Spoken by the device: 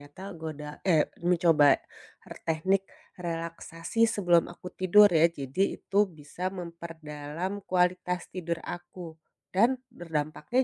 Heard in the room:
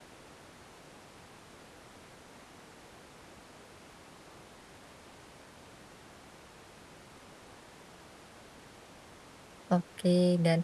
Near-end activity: present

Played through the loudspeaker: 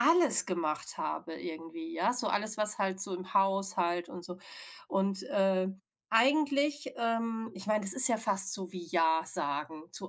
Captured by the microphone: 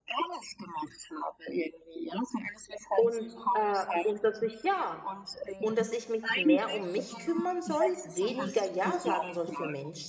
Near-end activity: present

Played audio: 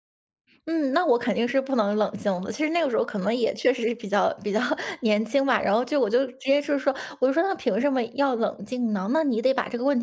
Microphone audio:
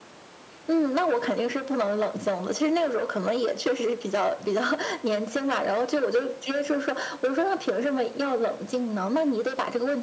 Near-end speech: none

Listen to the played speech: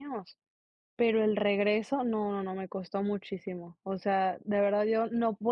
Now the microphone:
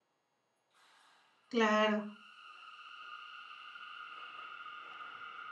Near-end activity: present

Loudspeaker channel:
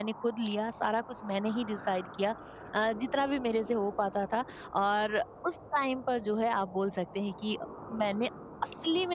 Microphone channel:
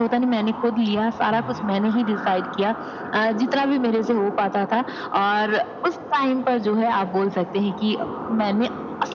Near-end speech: present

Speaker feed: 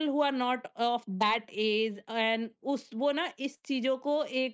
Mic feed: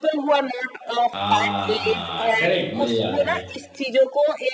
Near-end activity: present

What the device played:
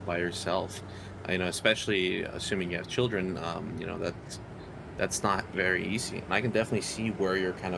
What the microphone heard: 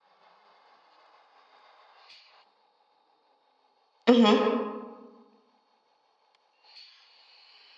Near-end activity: present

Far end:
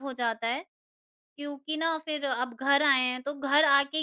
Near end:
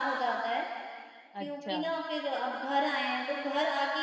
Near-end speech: present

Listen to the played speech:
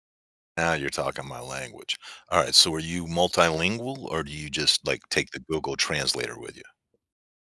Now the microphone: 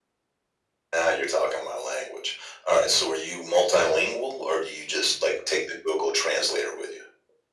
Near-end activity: none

